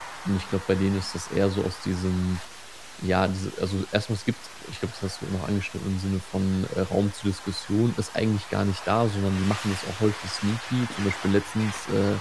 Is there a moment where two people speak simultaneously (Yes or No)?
No